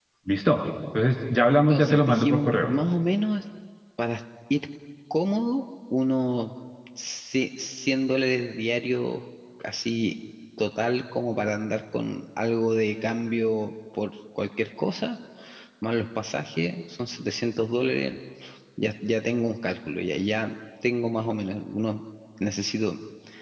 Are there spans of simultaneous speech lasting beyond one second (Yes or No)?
Yes